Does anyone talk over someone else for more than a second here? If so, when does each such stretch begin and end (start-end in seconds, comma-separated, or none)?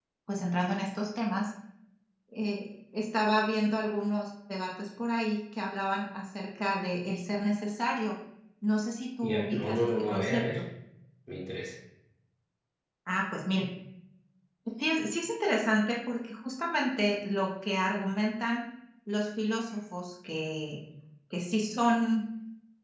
9.2-10.6